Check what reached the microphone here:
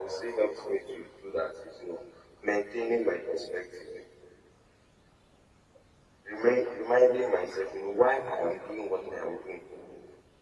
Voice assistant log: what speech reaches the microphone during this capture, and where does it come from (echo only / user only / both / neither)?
echo only